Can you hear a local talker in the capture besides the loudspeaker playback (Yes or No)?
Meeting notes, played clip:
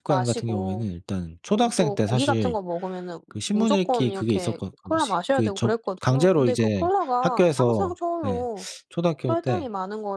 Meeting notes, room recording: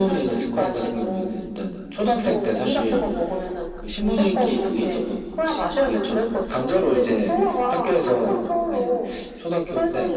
No